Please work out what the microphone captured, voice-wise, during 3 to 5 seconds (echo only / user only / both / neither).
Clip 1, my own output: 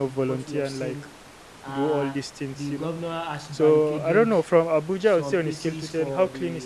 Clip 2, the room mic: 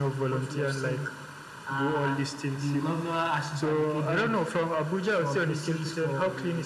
echo only